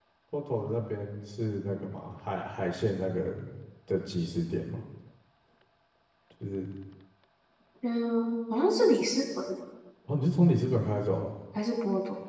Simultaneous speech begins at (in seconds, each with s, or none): none